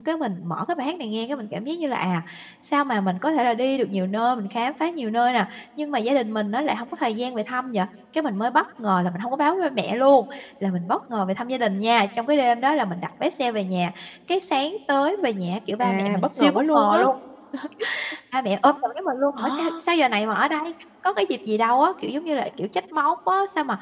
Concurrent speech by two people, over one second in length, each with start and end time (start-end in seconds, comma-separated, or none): 15.8-17.0